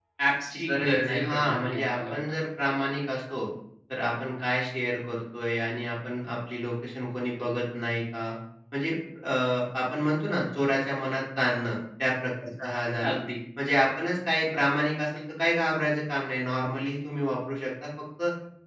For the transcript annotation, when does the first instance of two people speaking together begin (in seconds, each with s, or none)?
0.7 s